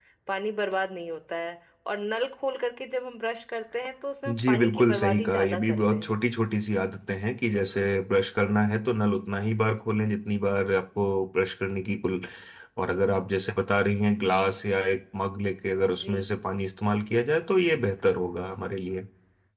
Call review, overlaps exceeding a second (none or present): present